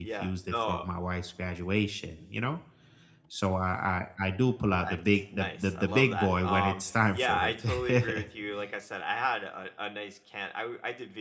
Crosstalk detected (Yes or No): Yes